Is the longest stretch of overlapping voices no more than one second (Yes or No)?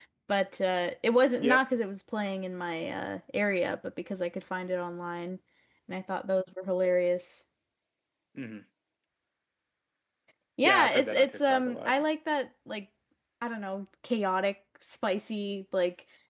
No